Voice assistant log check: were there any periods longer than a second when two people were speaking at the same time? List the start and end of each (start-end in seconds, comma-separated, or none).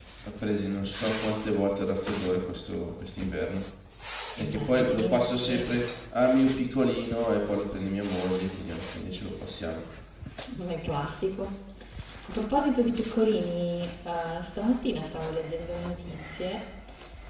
4.4-5.7